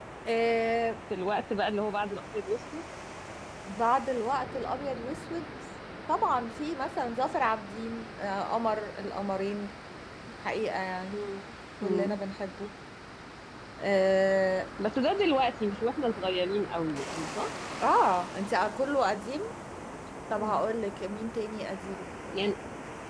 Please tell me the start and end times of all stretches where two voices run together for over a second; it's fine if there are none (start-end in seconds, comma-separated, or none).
none